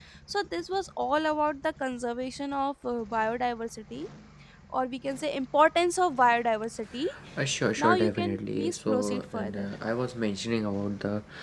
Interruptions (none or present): present